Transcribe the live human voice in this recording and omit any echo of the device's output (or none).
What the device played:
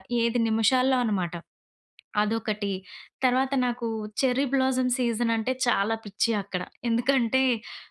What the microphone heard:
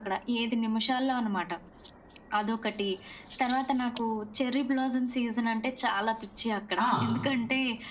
ఆ!